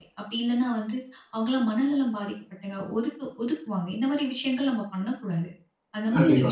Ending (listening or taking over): listening